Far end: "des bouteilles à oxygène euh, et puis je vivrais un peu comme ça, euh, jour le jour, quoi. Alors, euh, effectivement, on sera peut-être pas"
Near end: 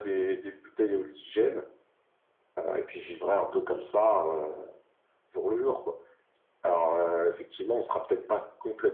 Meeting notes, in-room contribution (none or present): none